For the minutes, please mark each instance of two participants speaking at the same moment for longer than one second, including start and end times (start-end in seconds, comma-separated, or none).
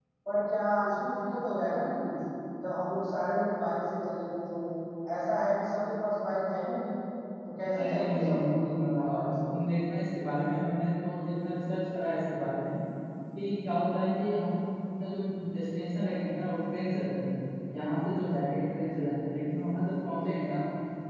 7.7-9.3